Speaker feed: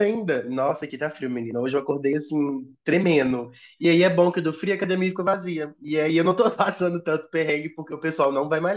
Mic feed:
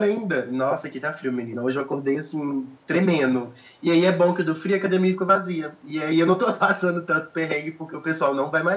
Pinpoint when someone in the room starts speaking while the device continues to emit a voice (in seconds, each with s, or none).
none